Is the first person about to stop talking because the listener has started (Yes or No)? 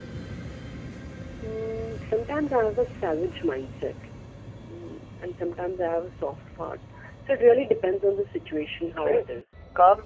Yes